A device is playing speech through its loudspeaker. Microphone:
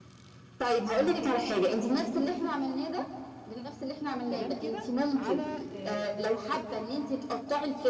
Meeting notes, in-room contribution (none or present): present